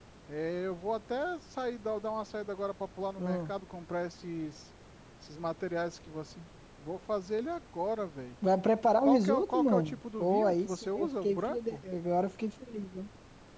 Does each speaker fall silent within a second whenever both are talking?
No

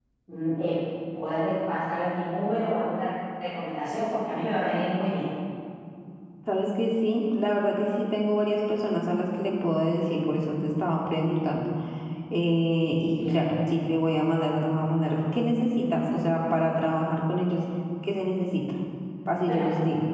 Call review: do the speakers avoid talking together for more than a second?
Yes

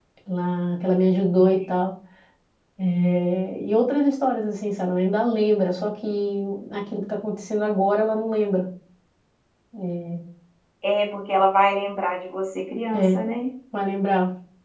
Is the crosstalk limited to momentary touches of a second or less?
Yes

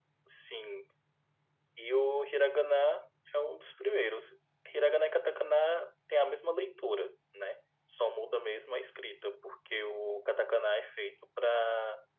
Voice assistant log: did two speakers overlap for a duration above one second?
No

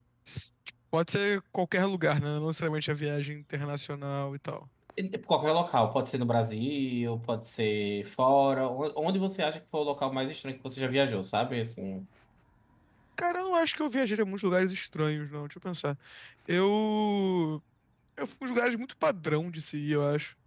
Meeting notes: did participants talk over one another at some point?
No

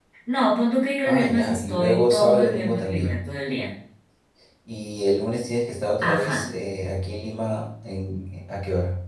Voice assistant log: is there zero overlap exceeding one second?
No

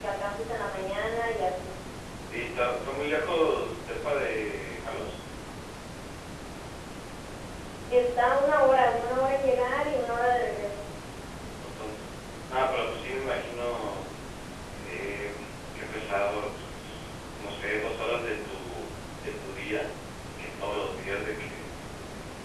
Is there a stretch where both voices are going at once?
No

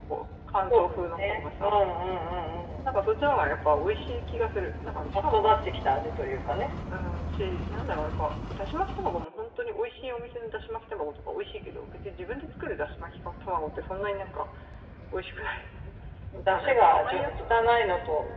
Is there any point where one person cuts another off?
Yes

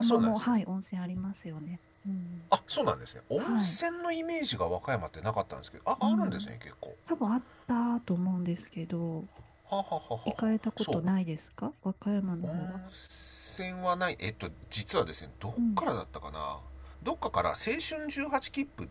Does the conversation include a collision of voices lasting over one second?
No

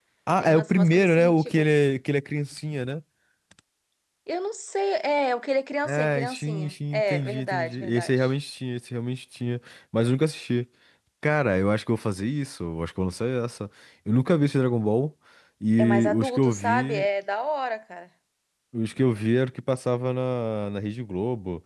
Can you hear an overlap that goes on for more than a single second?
Yes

